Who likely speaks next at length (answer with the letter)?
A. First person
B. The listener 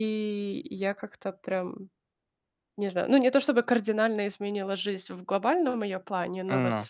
A